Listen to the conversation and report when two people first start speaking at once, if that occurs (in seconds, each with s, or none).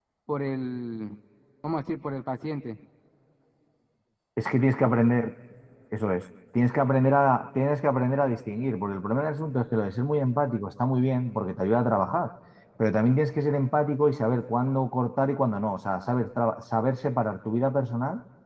none